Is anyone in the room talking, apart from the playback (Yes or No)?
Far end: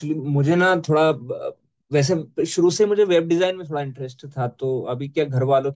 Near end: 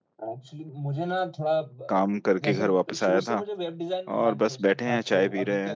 Yes